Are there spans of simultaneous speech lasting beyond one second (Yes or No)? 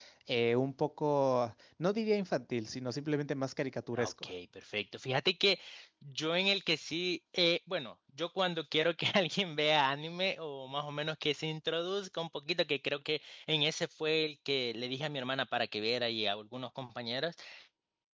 No